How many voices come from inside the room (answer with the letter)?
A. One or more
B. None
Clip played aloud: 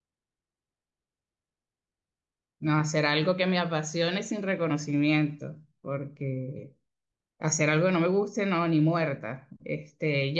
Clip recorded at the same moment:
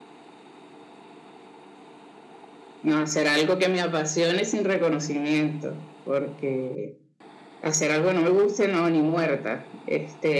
B